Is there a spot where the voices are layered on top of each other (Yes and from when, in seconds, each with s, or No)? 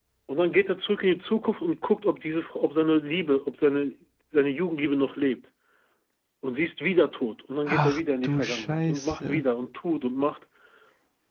Yes, from 7.7 s